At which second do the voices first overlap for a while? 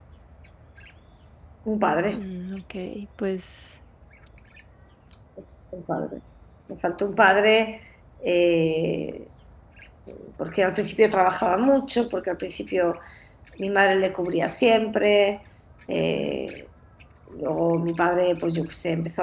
none

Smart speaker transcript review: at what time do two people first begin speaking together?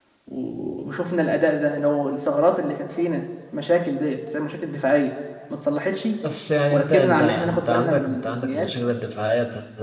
6.7 s

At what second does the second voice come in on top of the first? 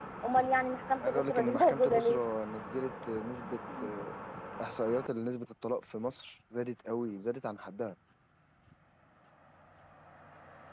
1.0 s

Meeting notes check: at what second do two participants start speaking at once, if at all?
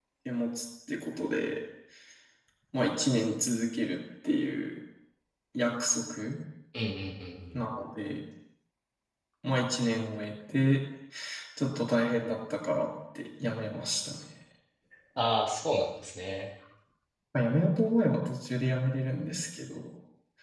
none

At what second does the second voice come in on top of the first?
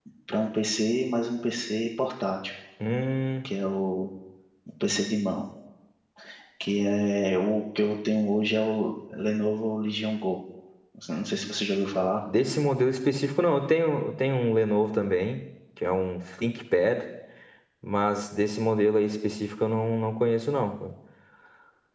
none

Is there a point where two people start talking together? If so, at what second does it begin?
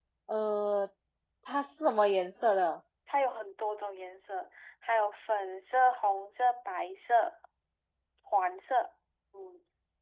none

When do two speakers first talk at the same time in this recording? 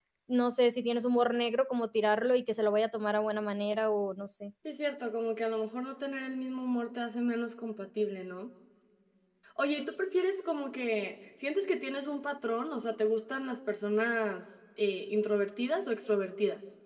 none

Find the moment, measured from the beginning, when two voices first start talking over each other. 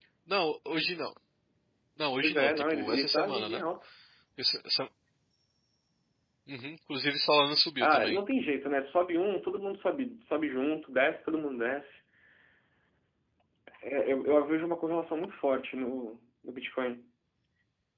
2.2 s

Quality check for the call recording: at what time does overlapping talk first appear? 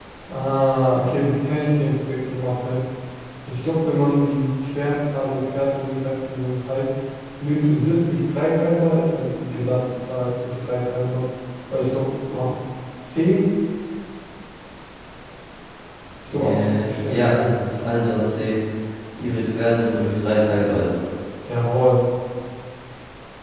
16.3 s

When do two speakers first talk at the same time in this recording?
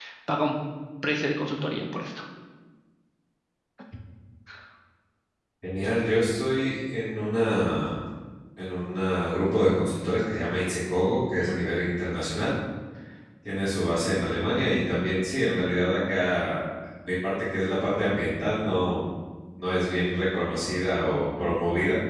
none

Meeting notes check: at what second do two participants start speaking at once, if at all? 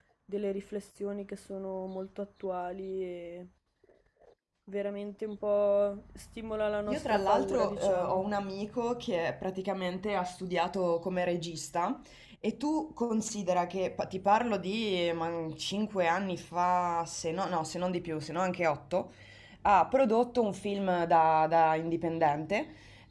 6.9 s

